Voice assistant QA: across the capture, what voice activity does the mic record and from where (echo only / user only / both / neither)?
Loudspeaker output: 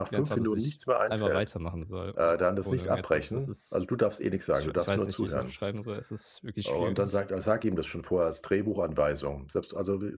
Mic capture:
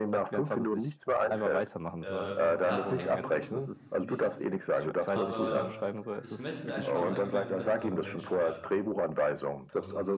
both